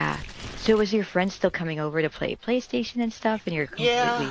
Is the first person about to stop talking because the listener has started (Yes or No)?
Yes